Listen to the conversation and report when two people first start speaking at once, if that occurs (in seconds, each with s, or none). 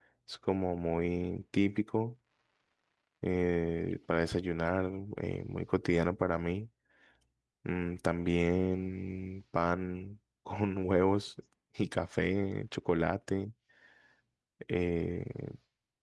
none